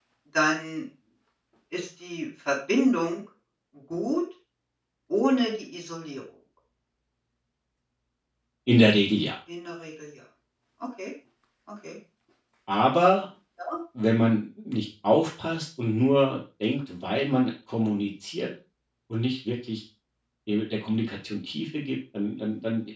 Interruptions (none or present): none